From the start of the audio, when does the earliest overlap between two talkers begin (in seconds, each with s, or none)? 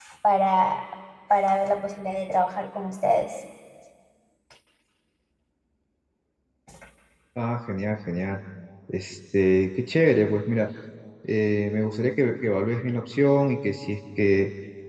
none